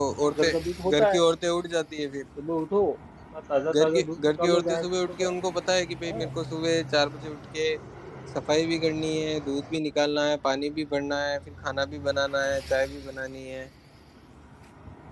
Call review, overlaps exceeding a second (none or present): present